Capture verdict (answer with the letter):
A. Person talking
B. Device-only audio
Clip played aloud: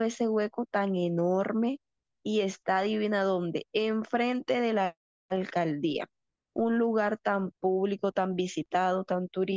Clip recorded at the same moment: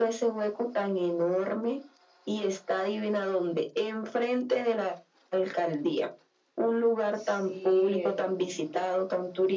A